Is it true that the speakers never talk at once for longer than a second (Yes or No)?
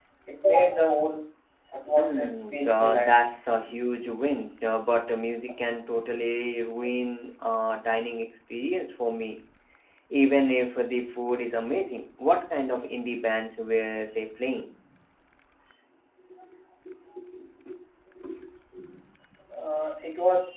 No